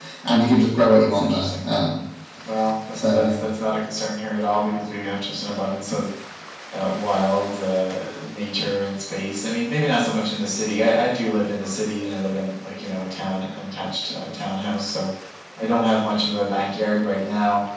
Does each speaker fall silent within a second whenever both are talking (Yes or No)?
Yes